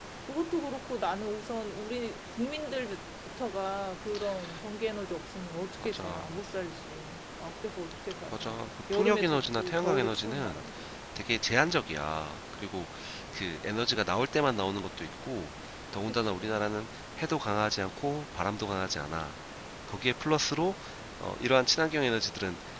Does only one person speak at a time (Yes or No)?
No